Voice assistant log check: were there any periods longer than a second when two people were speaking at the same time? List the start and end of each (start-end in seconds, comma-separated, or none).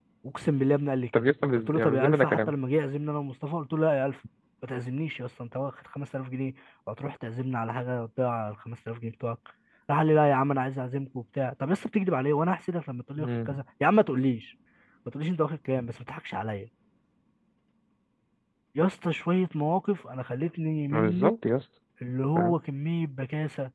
1.1-2.5